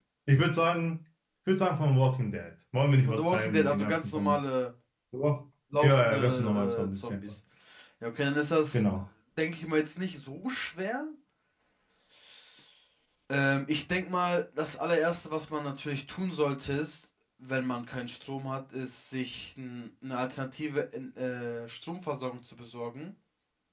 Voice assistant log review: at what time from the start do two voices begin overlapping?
3.1 s

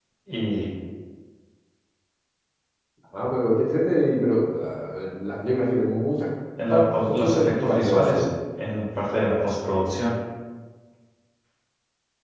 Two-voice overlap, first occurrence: 6.7 s

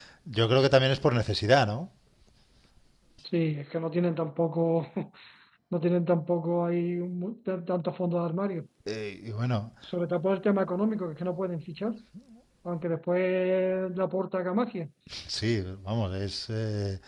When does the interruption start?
none

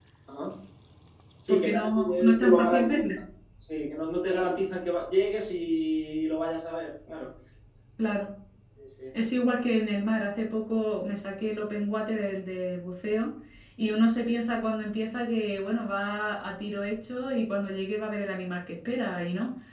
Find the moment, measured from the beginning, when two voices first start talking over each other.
1.5 s

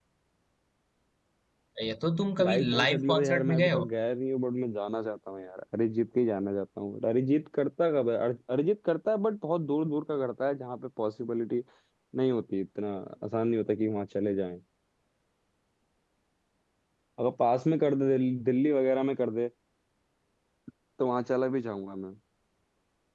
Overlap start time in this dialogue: 2.4 s

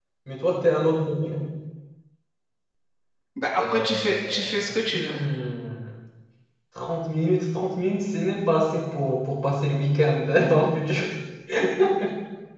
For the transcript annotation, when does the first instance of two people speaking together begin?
3.5 s

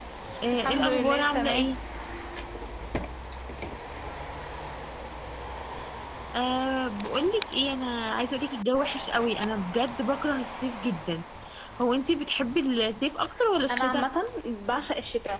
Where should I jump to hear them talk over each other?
0.5 s

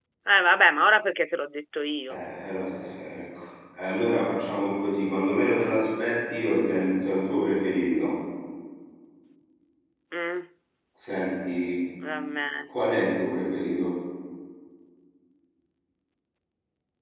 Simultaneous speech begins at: none

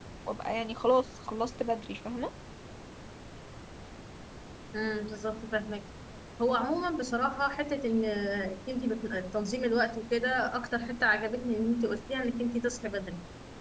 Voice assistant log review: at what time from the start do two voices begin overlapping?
none

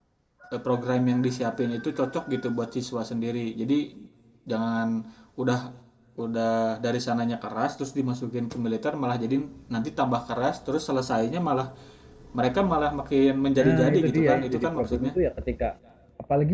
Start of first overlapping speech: 13.6 s

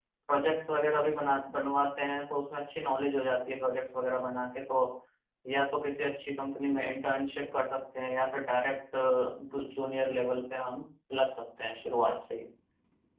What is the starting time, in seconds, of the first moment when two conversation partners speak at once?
none

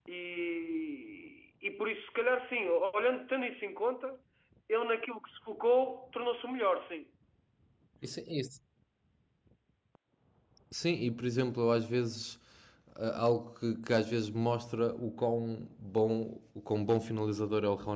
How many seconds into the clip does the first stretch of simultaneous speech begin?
none

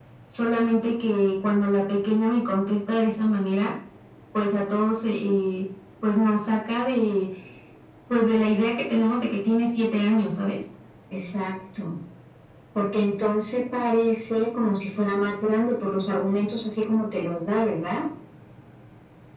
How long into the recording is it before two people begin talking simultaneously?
none

